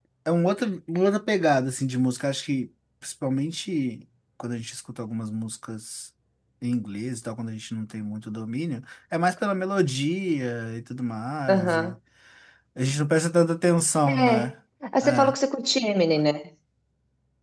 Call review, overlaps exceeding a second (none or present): none